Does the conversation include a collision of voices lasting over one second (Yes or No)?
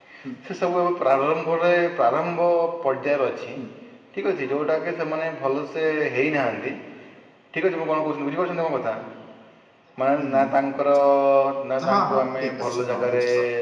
Yes